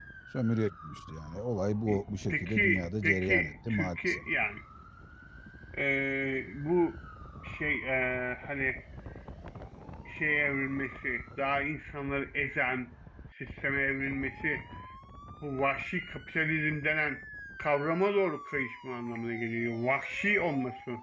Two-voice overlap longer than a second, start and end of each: 2.3-4.2

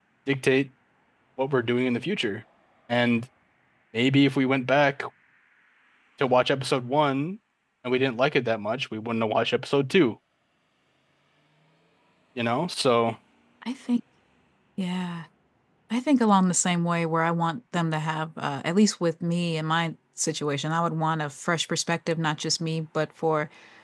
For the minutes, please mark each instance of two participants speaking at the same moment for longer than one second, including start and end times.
none

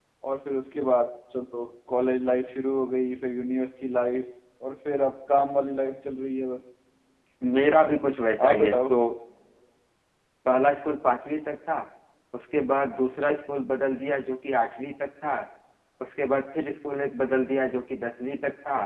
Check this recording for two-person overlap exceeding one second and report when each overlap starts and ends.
none

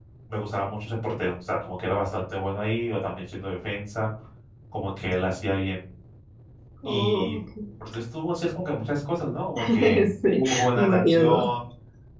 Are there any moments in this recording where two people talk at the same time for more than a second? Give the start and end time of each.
9.7-11.5

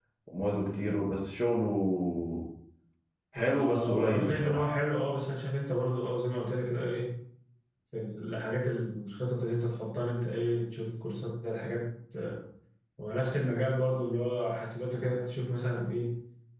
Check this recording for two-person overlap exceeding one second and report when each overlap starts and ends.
3.4-4.7

